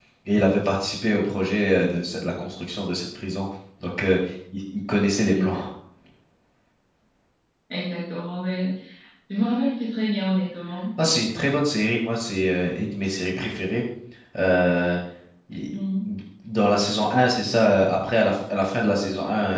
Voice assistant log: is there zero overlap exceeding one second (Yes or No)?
Yes